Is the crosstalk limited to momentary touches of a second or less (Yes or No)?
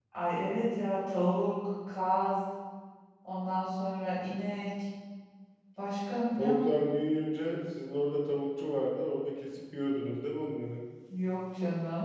Yes